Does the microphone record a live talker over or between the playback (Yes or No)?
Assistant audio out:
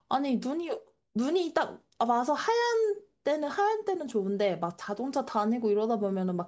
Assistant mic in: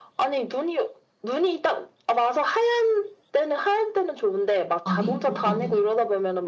Yes